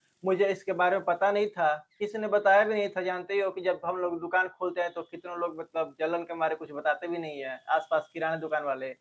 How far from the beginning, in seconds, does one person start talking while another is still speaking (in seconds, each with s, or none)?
none